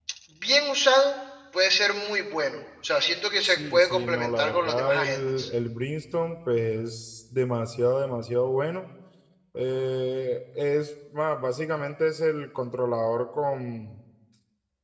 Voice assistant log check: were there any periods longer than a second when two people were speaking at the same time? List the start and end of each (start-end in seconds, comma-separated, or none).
3.4-5.5